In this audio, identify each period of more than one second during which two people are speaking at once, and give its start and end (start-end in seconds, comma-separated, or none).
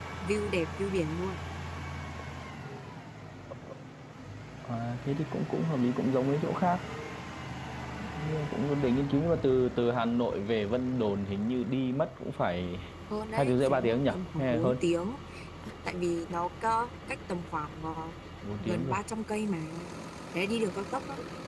13.4-14.8